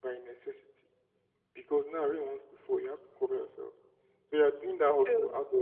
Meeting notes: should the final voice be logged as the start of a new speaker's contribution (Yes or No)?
No